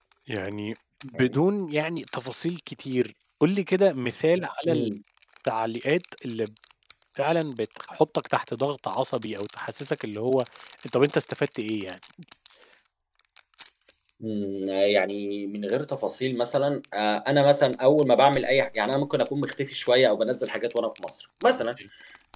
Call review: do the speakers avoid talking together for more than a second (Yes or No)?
Yes